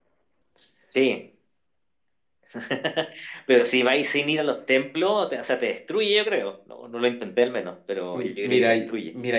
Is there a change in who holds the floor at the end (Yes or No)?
Yes